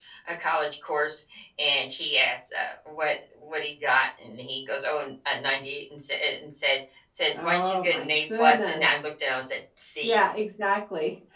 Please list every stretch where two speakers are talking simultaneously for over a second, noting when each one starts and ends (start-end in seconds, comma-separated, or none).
7.4-8.9